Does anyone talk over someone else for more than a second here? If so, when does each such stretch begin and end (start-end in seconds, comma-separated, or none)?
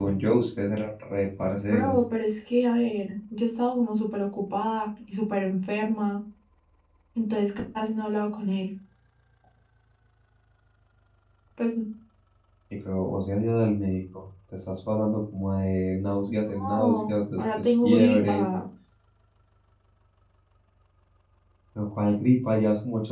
16.5-18.5